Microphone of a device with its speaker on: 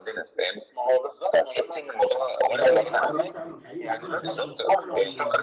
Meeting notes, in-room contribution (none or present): present